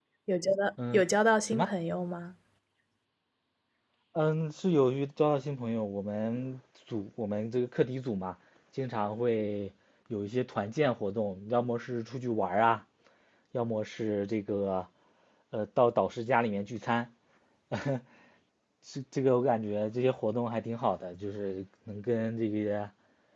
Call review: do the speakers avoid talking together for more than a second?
Yes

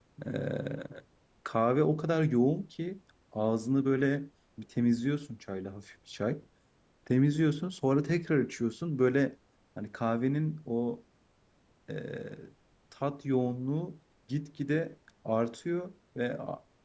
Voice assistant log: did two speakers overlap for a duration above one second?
No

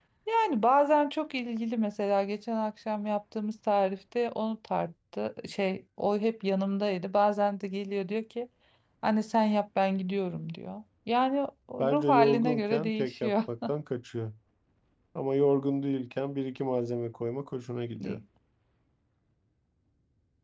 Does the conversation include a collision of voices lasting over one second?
Yes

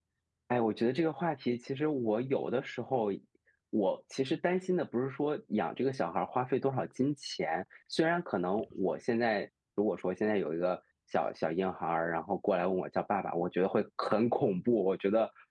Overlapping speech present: No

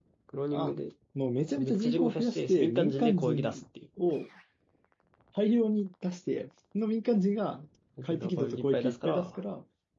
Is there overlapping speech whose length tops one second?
Yes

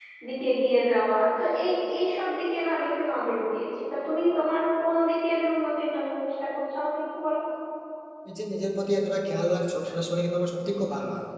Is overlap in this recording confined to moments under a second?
Yes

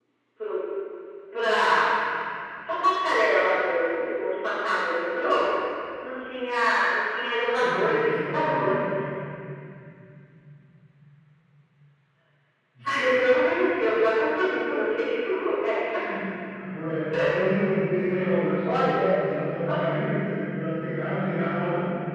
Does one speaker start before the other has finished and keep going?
Yes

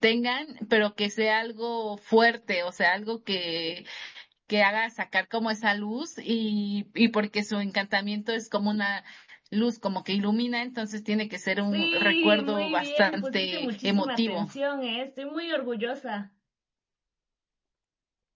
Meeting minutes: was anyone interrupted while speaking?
Yes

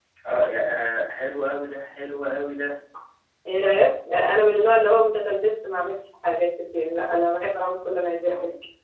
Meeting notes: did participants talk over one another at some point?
No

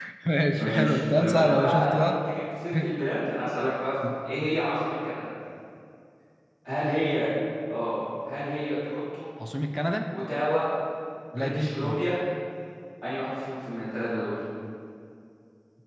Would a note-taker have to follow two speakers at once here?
Yes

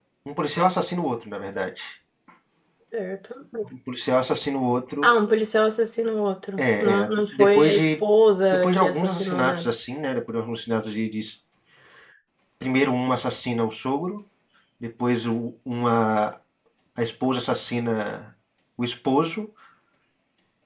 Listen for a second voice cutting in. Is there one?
Yes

